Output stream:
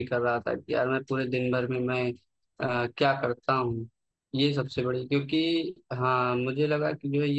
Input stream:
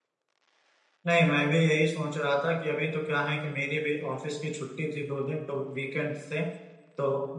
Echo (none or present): none